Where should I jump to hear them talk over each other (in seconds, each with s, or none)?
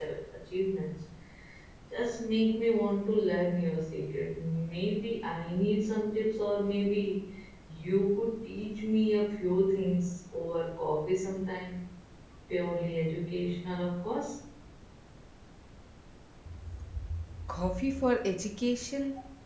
none